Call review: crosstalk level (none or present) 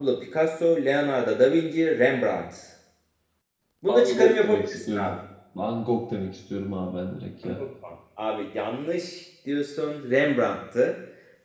present